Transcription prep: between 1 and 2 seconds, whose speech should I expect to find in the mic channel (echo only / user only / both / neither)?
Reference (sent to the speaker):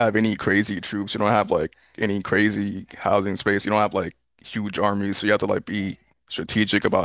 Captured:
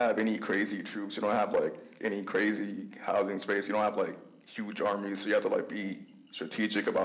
echo only